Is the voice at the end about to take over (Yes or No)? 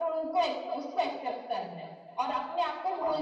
No